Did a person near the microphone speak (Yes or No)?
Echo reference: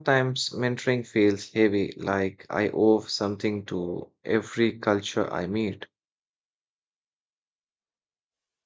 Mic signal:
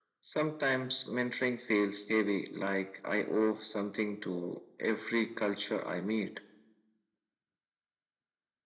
No